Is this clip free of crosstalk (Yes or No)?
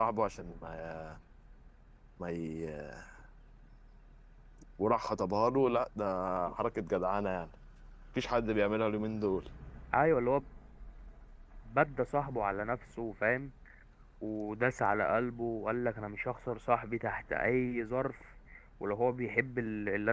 Yes